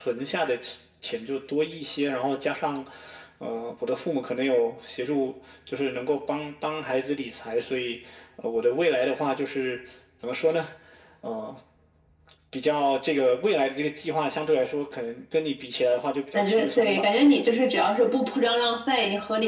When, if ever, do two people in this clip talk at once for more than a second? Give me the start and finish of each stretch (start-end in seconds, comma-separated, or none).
16.3-17.6